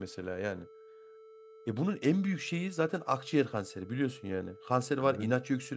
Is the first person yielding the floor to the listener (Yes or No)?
No